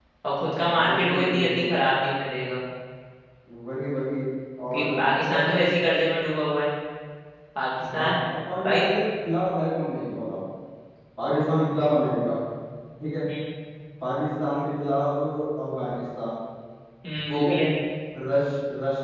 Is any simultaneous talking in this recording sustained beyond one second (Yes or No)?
Yes